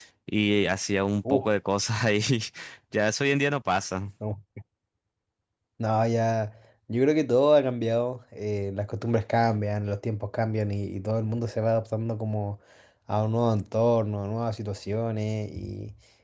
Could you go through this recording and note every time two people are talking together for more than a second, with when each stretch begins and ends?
none

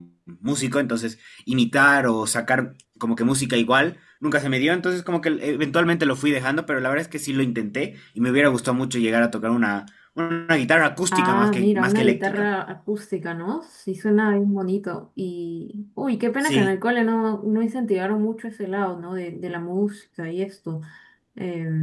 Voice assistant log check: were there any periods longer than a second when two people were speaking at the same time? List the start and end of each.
11.1-12.5

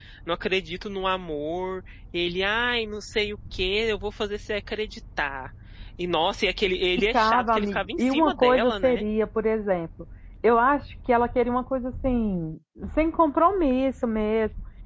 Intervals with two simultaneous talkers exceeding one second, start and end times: 7.1-9.0

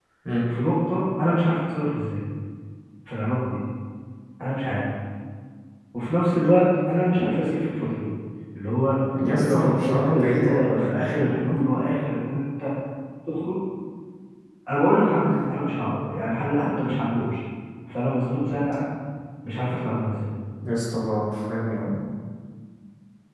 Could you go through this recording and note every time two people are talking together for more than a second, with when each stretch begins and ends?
9.3-11.0

